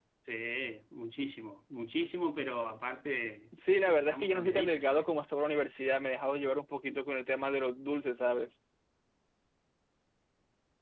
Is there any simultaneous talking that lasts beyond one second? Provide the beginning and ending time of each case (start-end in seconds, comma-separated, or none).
3.5-5.1